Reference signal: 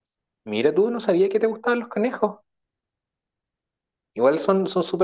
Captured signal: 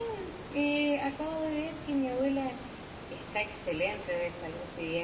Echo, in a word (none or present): none